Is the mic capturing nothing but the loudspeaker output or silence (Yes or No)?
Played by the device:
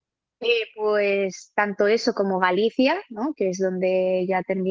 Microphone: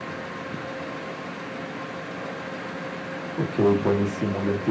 No